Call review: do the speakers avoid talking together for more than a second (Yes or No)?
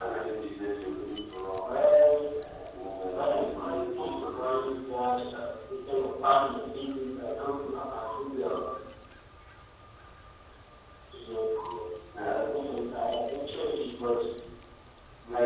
No